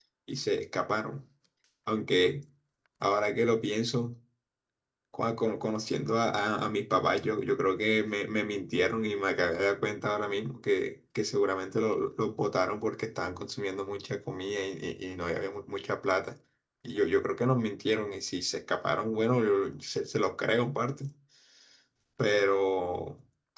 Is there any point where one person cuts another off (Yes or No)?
No